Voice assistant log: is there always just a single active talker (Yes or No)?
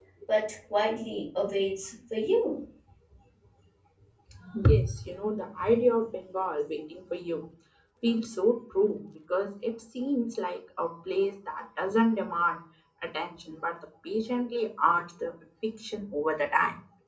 Yes